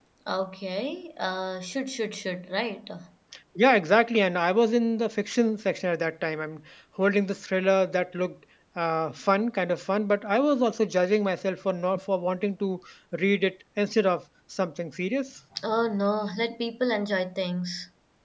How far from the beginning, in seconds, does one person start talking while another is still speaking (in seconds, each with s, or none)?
none